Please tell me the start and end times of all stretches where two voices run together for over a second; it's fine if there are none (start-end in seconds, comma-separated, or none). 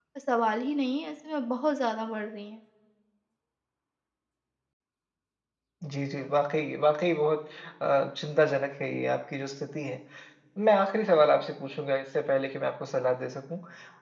none